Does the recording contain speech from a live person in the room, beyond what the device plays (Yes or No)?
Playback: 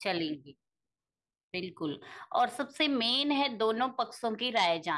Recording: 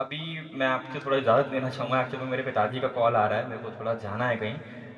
Yes